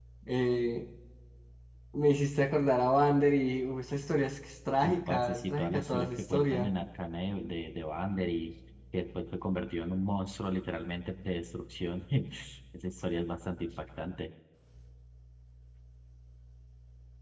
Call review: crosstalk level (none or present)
present